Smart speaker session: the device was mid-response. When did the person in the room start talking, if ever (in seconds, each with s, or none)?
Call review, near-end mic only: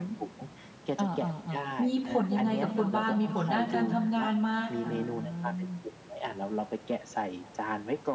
1.8 s